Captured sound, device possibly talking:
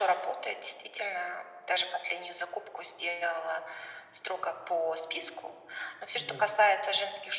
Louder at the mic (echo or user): echo